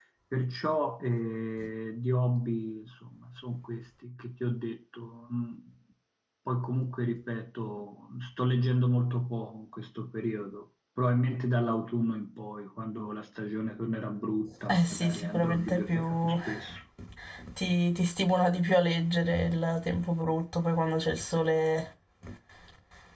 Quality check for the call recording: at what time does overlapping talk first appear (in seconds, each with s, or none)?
14.7 s